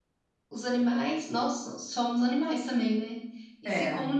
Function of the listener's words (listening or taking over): listening